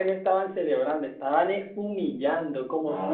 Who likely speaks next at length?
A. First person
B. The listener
A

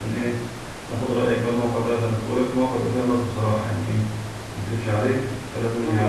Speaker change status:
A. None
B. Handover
B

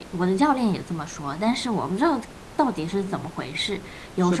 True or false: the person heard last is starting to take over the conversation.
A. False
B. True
B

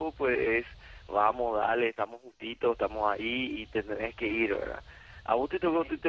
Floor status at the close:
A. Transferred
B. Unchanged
B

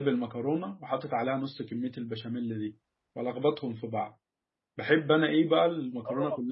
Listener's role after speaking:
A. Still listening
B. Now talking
B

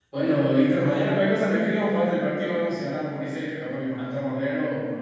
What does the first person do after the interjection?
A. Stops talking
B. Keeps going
B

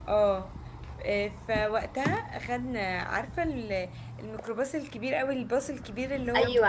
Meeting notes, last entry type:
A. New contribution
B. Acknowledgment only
A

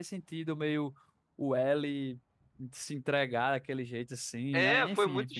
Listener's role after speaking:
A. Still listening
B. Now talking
B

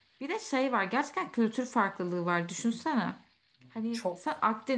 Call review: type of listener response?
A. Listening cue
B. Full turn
A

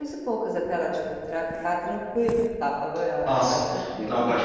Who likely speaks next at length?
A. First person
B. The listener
B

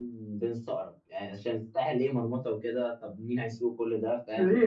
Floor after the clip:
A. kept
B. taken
B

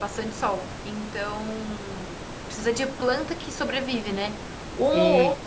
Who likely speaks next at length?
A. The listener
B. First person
B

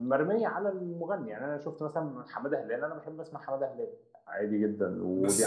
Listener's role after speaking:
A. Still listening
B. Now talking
B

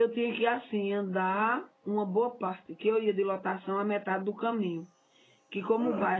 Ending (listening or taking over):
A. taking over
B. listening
B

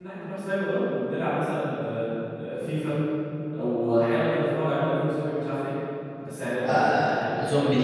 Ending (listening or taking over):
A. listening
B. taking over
B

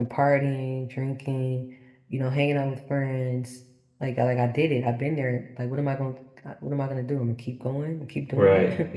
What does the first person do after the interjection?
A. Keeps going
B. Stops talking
B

